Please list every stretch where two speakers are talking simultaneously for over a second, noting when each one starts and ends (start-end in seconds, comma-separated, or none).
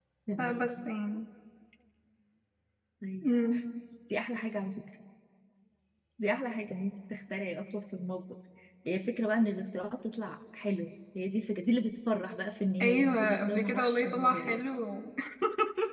12.8-14.7